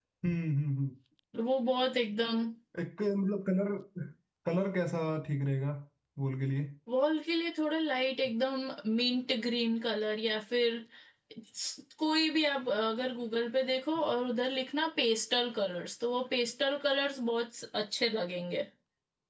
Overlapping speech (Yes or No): No